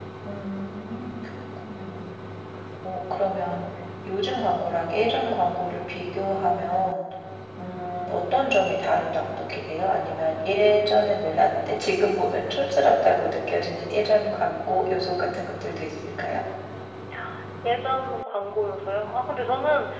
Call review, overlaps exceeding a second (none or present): none